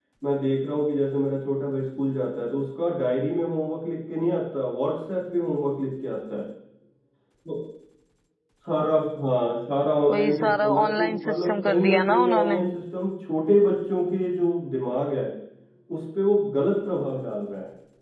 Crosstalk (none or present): present